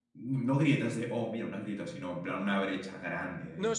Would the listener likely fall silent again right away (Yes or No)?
No